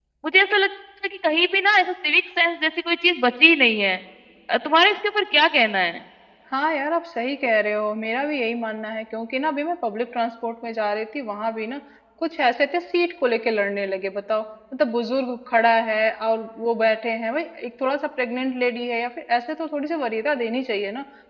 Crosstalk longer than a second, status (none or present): none